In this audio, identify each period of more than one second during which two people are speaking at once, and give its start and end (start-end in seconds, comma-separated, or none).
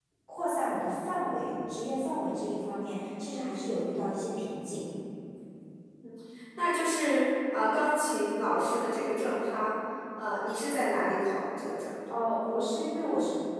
none